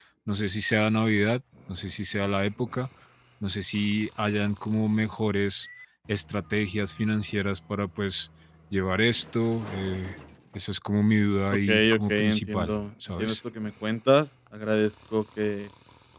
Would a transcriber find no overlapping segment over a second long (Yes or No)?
No